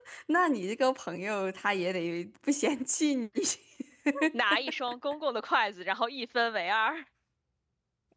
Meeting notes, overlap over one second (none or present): none